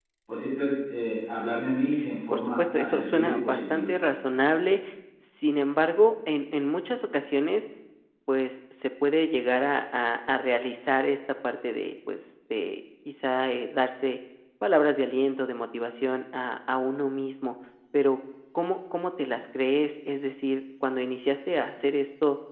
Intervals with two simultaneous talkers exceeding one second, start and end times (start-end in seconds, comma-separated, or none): 2.3-3.9